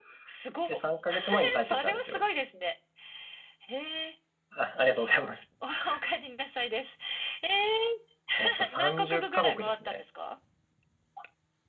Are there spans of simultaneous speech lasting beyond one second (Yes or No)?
Yes